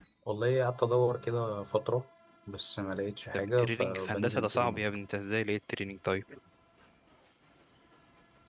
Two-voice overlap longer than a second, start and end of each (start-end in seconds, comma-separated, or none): 3.6-4.9